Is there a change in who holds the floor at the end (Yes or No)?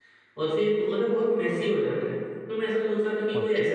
No